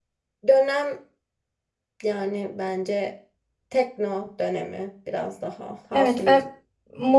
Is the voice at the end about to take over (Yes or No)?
Yes